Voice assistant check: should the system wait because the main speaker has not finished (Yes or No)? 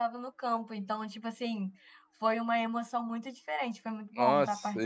No